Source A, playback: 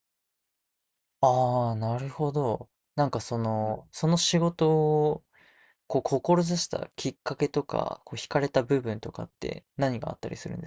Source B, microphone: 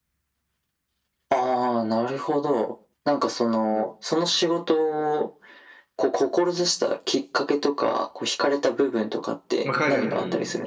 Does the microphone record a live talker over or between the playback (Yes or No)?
Yes